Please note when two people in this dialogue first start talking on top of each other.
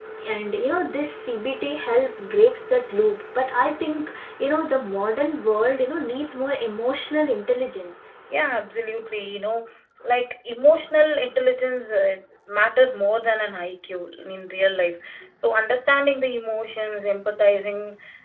none

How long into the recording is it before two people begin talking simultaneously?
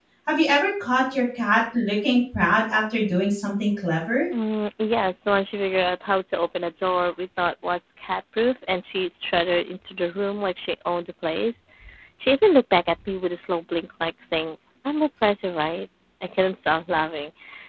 none

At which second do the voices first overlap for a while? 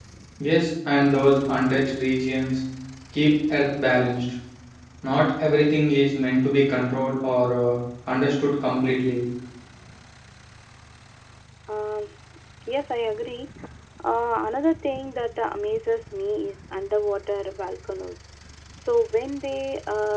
none

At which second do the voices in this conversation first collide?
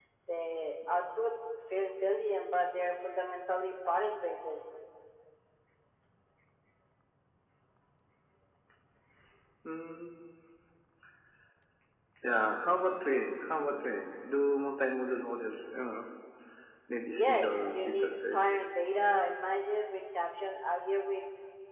17 s

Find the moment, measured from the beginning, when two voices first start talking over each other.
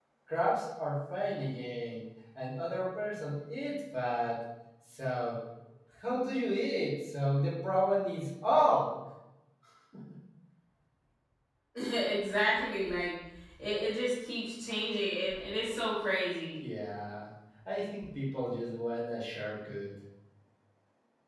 none

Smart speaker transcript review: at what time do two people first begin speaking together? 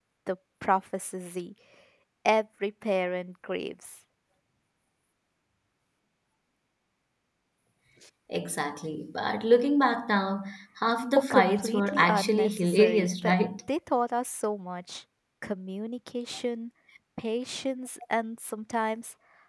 11 s

